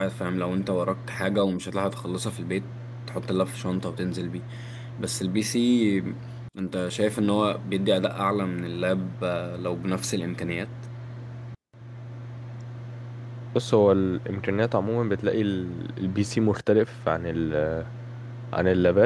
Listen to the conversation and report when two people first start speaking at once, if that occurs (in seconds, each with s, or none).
none